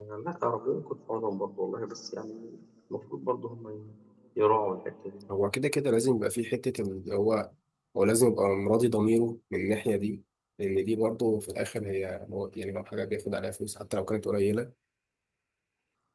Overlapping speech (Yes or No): No